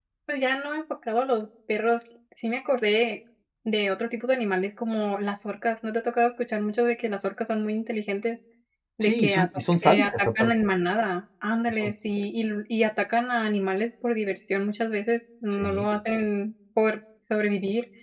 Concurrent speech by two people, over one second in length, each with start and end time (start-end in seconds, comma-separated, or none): 9.0-10.5